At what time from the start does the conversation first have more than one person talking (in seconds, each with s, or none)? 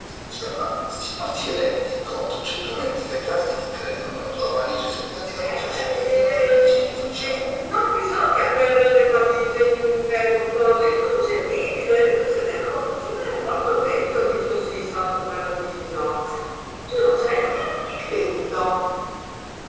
5.4 s